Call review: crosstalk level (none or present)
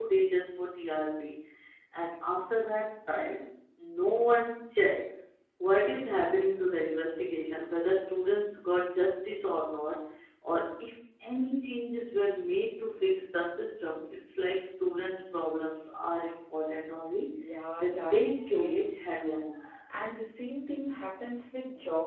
present